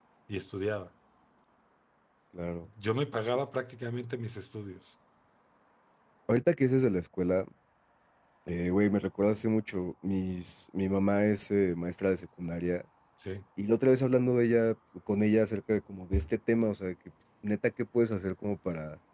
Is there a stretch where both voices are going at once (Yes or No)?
No